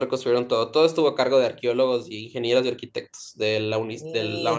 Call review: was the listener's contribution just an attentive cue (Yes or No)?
No